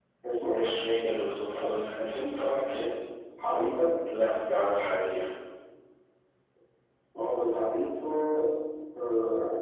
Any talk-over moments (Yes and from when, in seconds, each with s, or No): No